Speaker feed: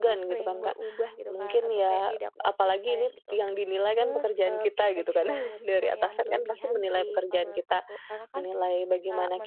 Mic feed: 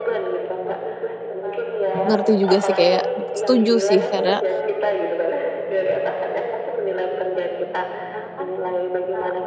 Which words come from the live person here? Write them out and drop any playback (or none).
ngerti juga sih kayak setuju sih karena